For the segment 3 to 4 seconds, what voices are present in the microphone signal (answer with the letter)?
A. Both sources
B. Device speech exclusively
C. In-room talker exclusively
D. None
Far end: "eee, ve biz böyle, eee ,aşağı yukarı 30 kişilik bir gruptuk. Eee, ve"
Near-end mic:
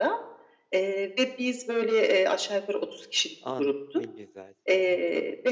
A